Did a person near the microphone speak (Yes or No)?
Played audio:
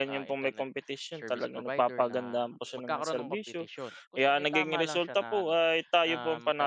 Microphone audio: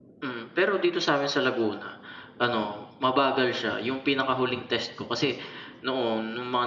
Yes